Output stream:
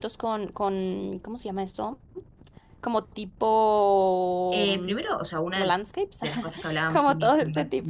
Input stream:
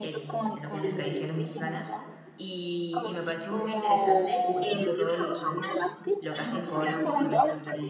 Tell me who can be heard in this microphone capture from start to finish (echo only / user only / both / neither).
both